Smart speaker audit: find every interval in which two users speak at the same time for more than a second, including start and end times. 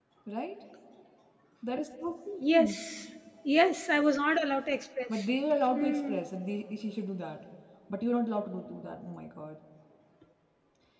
none

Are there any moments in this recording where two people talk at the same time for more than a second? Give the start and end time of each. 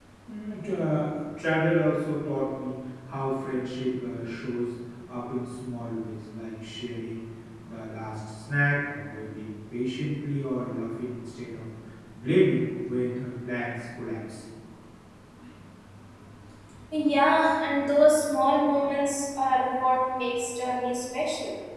none

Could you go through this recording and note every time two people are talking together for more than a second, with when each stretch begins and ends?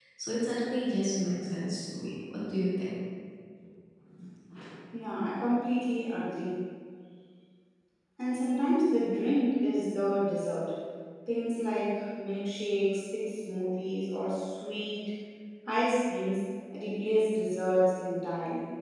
none

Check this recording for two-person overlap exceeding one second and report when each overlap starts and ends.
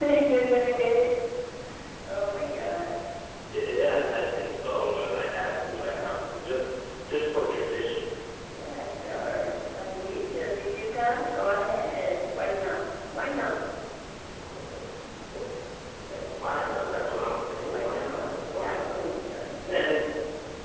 17.6-19.1

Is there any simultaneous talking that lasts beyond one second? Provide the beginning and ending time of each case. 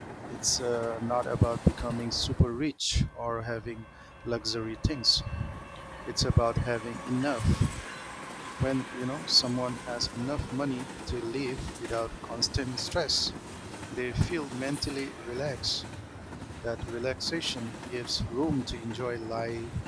none

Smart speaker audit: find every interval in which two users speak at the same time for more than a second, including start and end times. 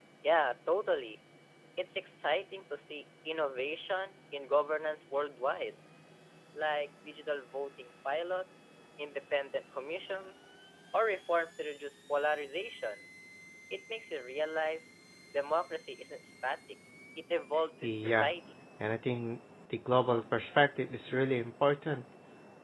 none

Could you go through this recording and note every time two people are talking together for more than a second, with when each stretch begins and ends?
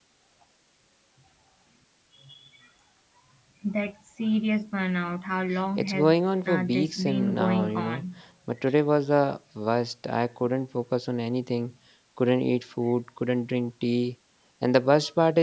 6.4-8.0

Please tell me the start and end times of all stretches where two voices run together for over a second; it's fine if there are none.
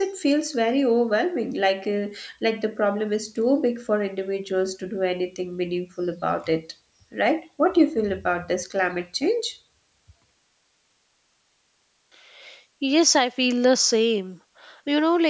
none

